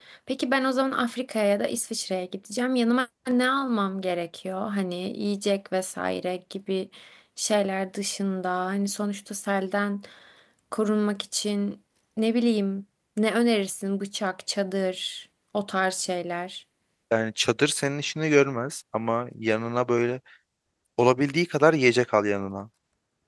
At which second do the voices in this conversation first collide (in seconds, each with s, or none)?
none